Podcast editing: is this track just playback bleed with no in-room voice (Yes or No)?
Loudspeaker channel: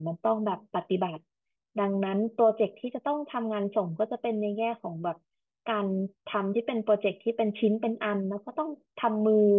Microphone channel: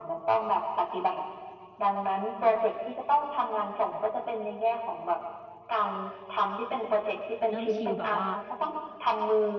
No